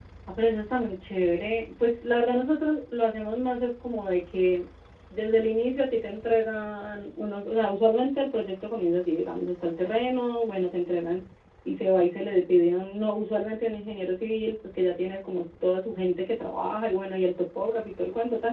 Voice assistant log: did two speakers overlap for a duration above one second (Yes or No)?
No